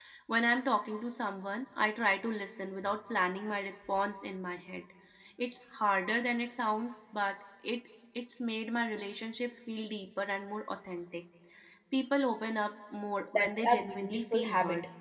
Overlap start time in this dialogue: 13 s

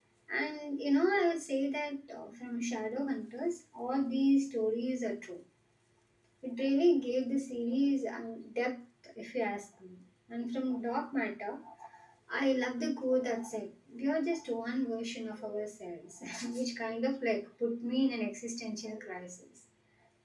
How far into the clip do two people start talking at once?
none

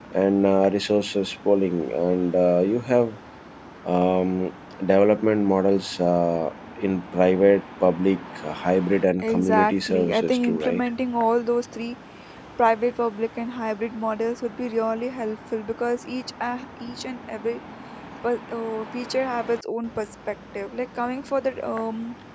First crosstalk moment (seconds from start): 9 s

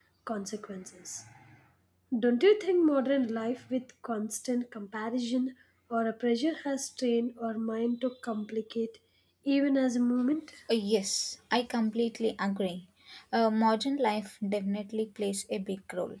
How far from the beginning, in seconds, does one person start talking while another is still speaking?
none

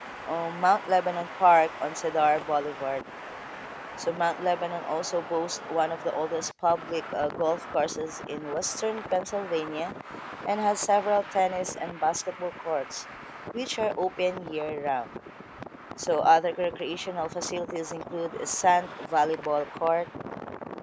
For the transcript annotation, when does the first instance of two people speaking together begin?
none

